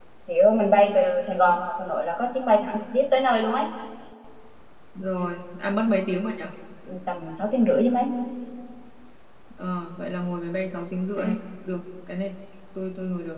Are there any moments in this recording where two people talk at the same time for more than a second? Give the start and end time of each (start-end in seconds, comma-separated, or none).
none